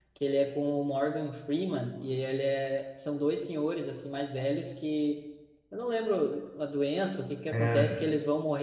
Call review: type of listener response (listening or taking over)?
listening